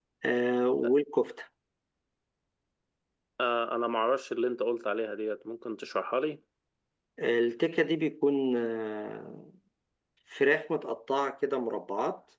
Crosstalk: none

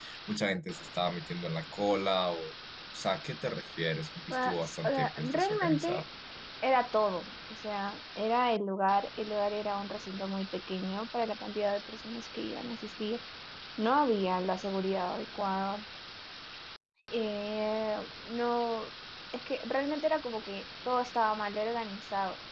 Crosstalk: present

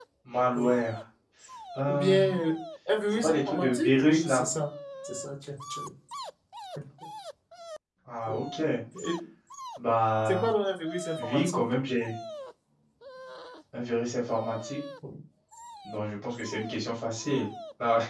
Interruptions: present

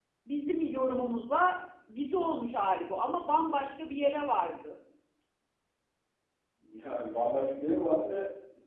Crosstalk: none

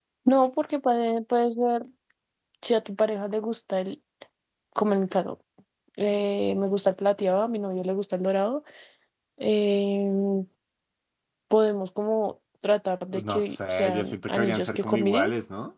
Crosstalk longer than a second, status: present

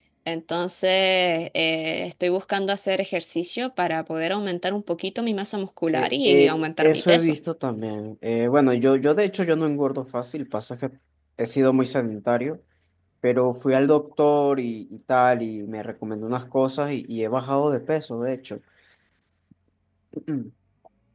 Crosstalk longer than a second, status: present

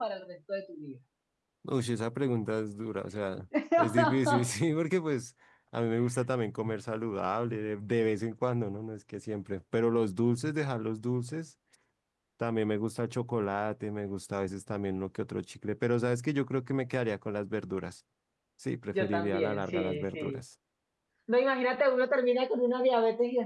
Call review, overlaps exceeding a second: present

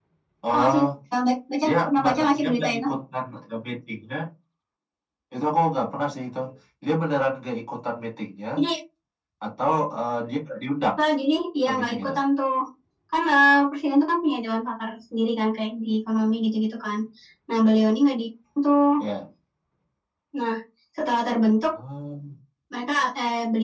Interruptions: present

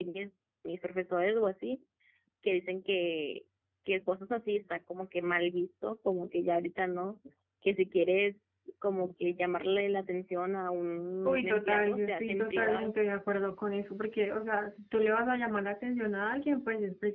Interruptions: present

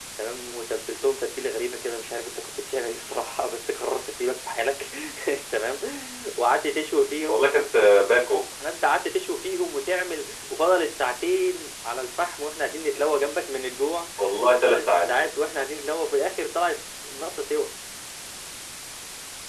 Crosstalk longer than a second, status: none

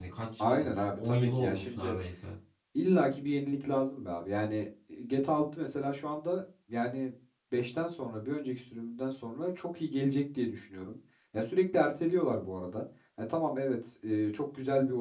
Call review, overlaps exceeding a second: present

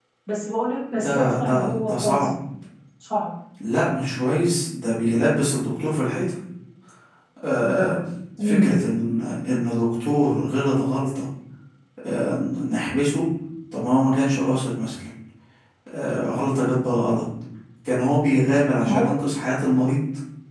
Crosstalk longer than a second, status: present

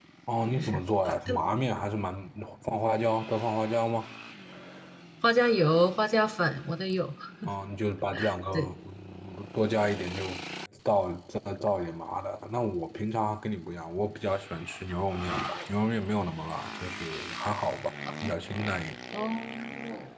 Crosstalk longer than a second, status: none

